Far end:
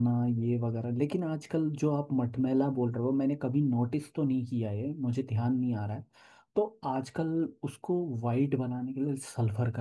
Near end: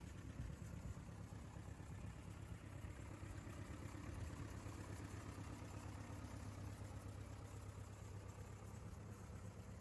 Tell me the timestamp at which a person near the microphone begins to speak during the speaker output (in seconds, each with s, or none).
none